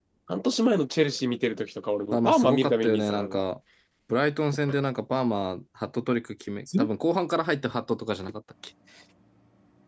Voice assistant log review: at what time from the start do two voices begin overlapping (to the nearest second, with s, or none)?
2 s